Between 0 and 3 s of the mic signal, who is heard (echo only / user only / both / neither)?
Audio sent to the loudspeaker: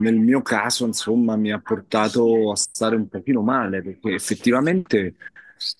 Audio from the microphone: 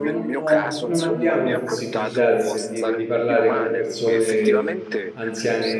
both